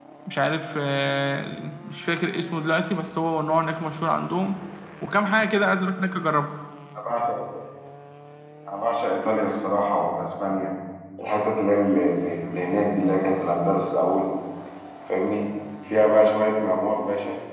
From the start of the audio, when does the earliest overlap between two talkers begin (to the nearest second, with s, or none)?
none